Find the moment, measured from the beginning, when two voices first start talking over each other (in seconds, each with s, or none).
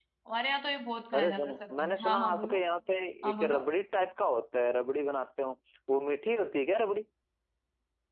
1.1 s